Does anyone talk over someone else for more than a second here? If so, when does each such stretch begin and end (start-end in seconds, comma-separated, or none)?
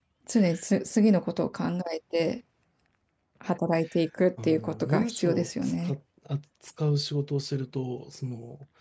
4.4-5.9